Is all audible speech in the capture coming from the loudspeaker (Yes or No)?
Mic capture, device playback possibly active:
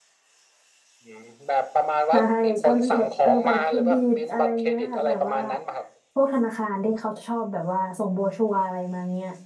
No